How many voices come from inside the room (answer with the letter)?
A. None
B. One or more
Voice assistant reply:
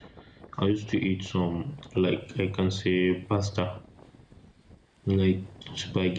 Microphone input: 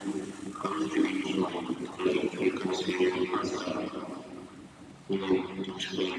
A